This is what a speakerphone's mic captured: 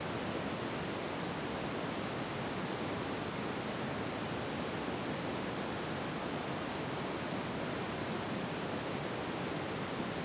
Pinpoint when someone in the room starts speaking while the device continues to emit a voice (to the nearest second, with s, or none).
none